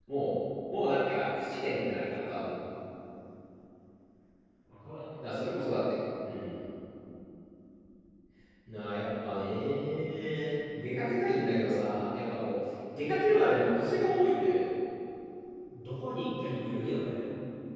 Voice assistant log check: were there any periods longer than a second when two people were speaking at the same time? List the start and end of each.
none

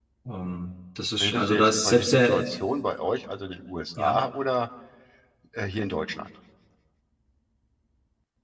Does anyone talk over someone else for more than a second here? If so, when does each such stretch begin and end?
1.2-2.5

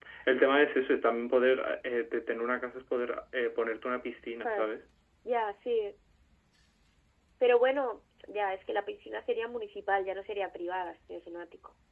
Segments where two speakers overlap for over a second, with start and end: none

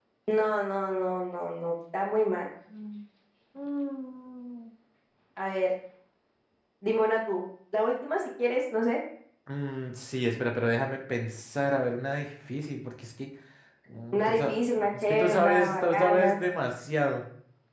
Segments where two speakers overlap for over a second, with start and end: 15.0-16.4

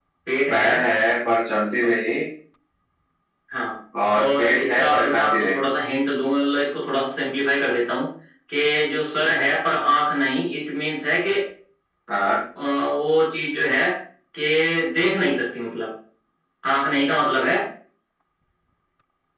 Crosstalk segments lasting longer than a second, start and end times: 4.1-5.6

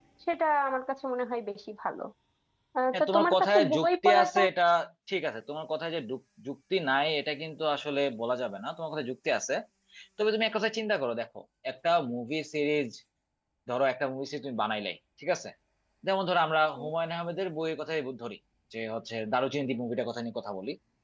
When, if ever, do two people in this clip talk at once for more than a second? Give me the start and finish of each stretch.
2.9-4.4

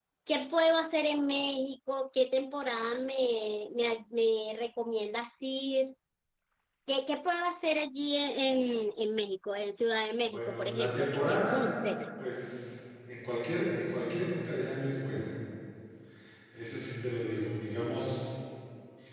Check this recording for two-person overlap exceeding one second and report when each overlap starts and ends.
10.2-11.7

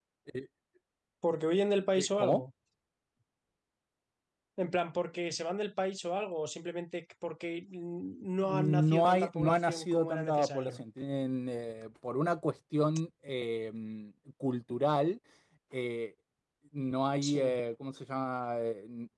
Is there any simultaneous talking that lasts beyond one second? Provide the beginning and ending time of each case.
8.4-10.8

